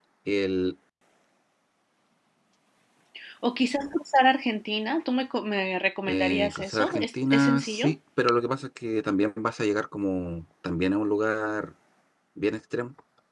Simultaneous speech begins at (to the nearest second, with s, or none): 6 s